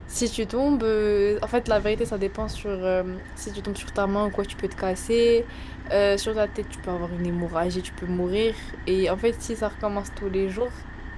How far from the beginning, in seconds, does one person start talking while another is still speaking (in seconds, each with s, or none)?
none